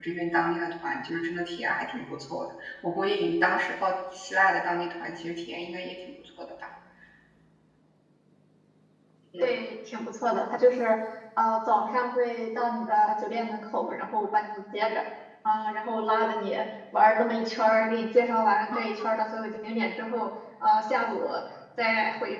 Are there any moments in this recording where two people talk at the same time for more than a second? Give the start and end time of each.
none

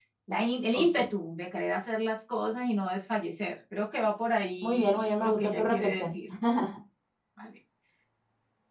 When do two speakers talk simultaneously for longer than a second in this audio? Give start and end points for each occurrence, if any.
4.6-6.1

